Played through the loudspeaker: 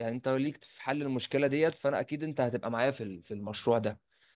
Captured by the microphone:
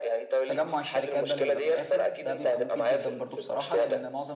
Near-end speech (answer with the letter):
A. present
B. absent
A